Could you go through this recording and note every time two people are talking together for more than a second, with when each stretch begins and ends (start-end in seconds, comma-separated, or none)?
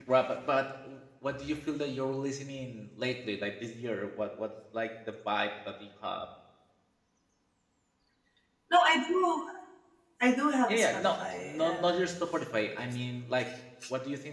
10.7-12.0